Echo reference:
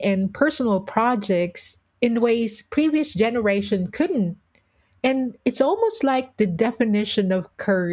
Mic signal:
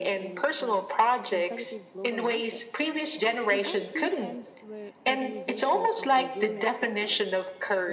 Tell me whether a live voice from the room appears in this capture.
Yes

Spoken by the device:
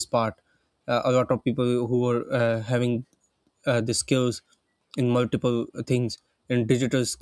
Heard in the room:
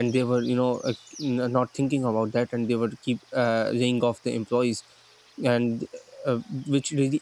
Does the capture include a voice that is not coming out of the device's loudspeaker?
Yes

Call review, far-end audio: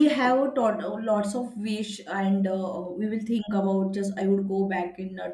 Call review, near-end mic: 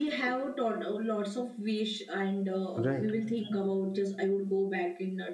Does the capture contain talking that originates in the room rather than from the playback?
Yes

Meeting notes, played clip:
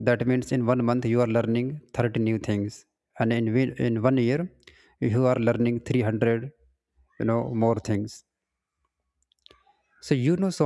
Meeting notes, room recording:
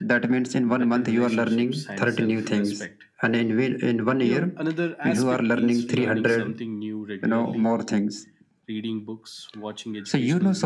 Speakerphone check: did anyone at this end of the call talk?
Yes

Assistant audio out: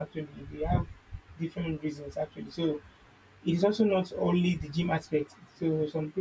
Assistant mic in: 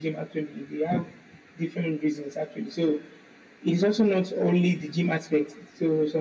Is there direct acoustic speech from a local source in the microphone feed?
No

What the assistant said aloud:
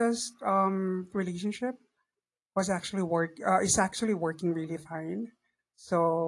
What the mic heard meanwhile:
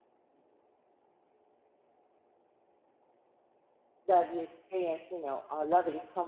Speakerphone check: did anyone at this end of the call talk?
Yes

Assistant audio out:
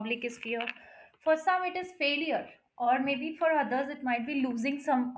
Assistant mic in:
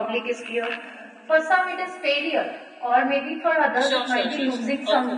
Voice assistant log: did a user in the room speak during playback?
Yes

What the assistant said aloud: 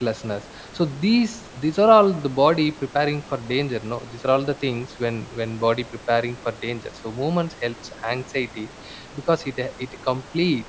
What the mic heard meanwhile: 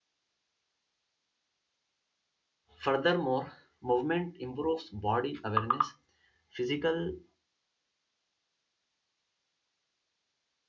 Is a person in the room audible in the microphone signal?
Yes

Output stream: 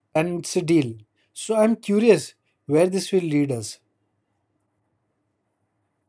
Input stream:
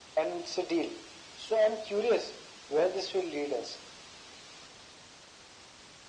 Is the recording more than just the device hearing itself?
No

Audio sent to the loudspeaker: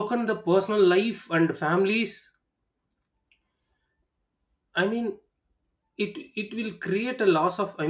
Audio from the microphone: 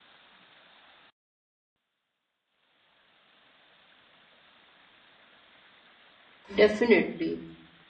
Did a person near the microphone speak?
Yes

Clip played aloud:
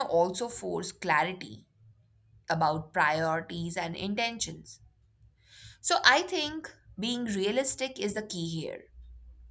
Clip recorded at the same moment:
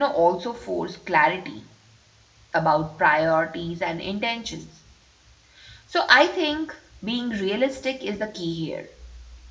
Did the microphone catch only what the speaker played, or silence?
Yes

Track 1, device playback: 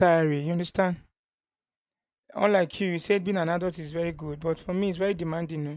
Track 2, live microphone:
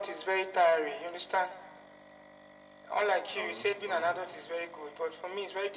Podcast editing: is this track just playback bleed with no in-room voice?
No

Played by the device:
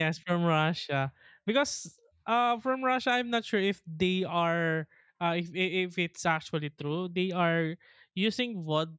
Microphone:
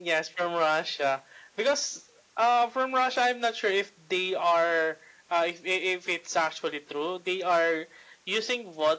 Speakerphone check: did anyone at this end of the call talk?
No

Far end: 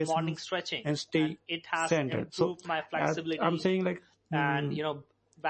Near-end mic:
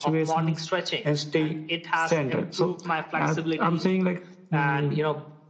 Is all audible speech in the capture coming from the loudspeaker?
Yes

